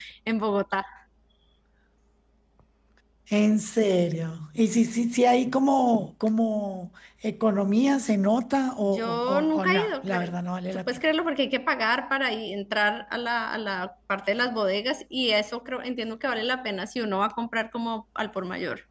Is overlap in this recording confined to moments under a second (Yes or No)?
No